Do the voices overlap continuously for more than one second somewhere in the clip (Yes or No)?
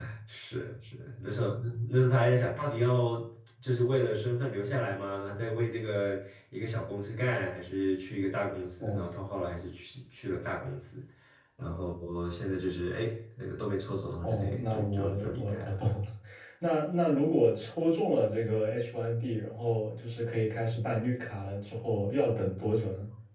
Yes